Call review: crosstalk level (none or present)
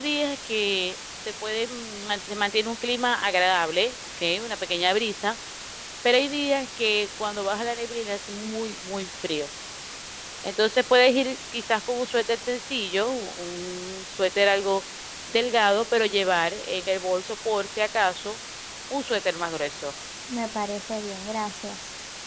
none